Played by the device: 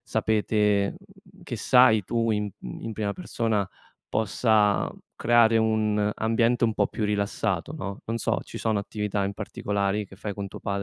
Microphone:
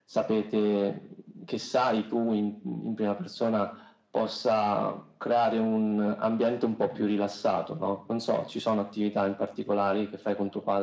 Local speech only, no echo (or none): none